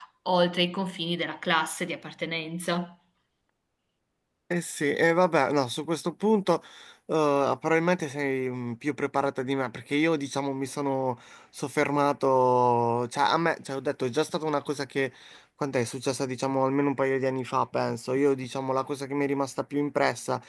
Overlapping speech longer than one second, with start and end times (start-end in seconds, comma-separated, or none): none